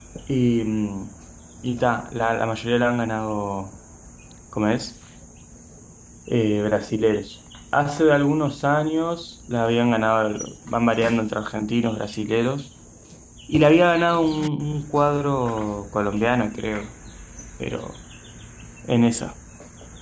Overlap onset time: none

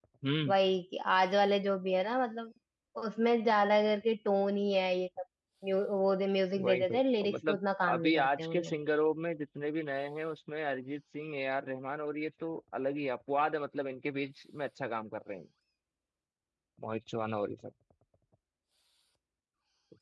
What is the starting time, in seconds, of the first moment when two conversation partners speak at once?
6.5 s

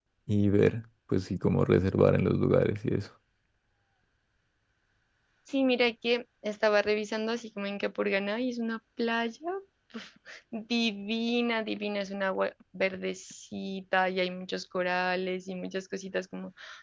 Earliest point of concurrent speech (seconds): none

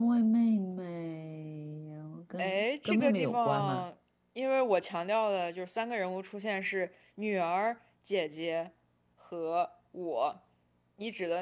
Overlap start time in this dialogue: 2.4 s

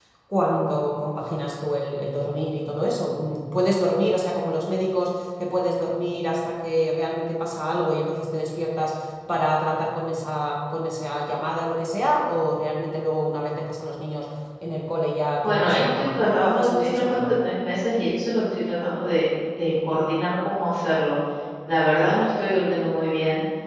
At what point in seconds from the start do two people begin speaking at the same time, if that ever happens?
15.4 s

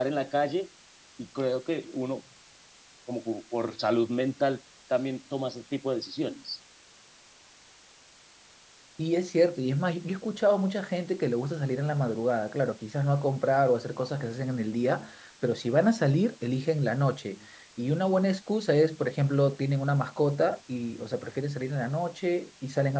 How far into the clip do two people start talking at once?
none

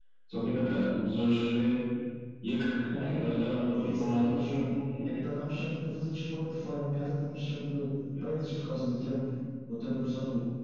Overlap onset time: 3.4 s

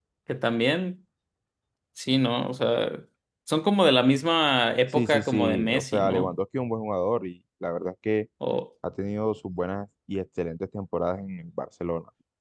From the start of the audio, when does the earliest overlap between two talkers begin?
4.9 s

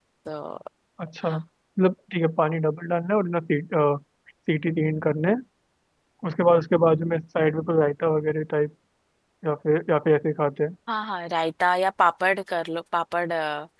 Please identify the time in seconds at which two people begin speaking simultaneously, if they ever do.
none

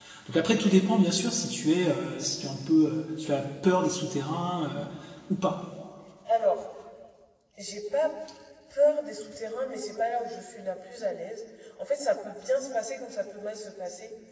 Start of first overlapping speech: none

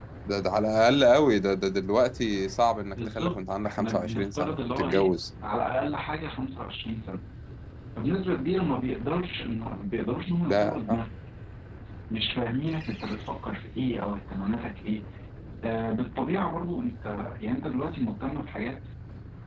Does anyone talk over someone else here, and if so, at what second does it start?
2.9 s

